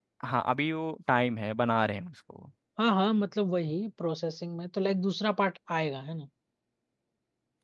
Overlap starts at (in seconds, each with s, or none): none